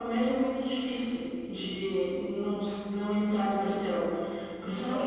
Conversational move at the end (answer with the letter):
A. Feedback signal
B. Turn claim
A